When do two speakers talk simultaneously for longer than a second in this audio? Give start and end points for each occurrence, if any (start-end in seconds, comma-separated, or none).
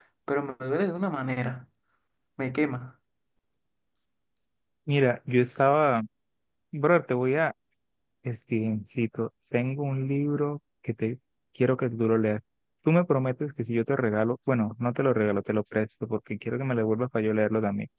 none